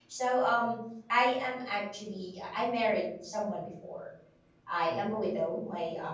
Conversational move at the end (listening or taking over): listening